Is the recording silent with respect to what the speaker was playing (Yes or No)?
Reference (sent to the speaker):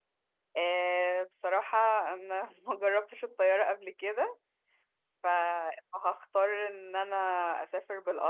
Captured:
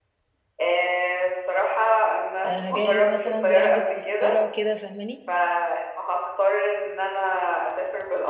No